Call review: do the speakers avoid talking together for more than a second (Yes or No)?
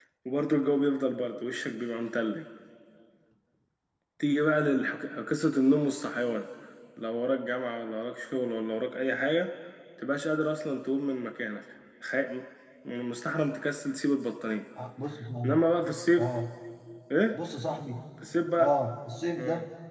Yes